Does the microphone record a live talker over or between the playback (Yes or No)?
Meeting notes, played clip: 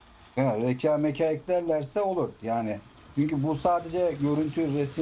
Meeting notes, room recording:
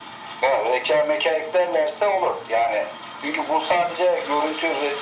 No